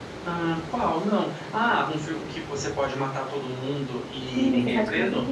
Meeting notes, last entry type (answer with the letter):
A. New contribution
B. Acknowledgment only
A